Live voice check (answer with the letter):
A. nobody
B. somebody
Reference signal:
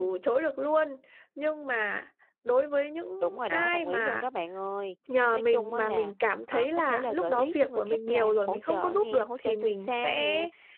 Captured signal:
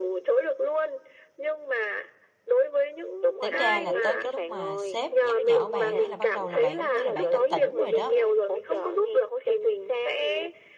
B